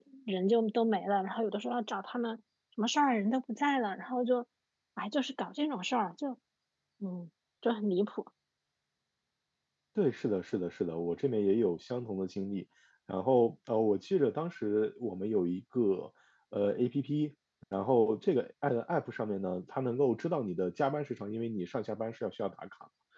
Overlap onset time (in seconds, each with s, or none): none